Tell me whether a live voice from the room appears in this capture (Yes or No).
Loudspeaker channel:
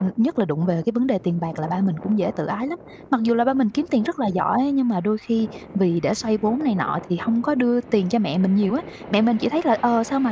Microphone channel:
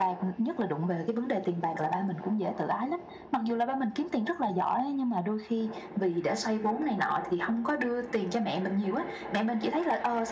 No